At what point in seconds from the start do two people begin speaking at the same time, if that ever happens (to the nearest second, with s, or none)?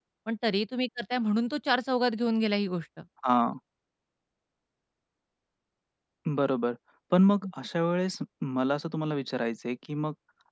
none